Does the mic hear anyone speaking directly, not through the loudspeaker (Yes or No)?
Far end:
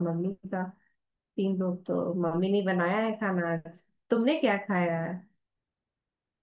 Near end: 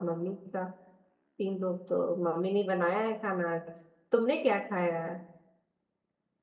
No